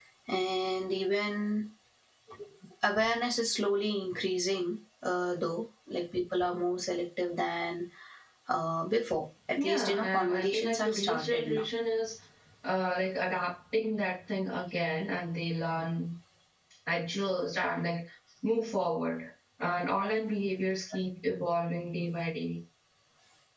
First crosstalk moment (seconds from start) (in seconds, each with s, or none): 9.6 s